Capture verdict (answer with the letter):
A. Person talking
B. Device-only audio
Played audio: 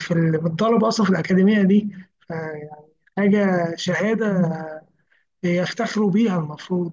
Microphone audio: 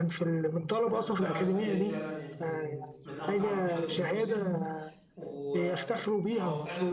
A